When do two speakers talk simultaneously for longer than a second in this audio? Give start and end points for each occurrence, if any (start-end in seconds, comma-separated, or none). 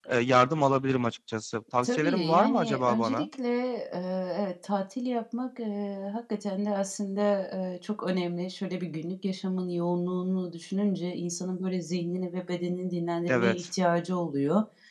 1.8-3.2